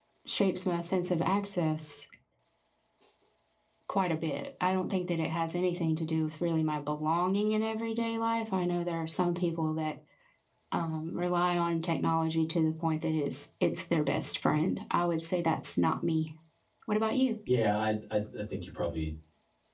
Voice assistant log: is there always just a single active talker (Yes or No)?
Yes